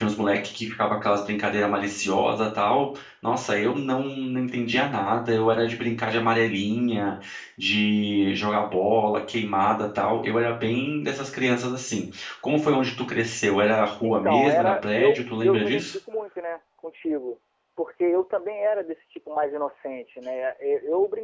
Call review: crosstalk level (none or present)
present